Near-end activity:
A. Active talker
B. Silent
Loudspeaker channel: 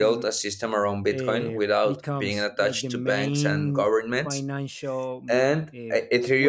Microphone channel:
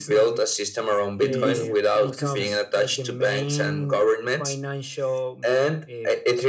A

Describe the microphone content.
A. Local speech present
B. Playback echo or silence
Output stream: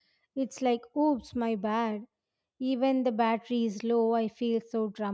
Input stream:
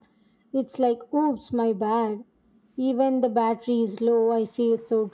B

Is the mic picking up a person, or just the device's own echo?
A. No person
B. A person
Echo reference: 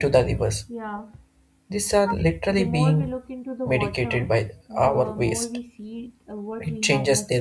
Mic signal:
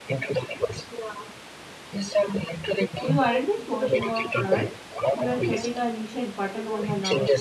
B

